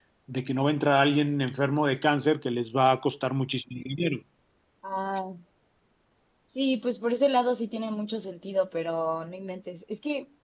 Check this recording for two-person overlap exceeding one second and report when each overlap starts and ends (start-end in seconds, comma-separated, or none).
none